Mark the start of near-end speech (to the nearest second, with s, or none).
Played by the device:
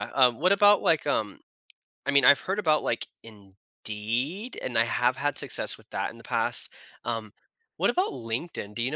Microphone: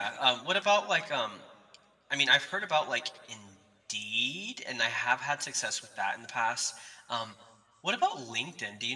none